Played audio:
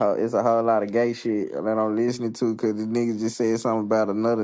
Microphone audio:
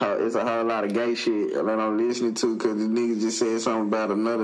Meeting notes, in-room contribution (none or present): none